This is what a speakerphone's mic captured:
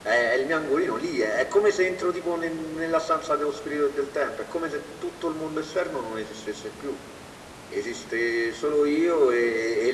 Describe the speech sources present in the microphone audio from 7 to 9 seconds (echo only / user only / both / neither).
echo only